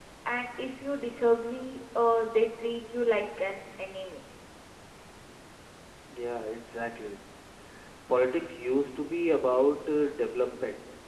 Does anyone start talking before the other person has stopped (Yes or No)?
No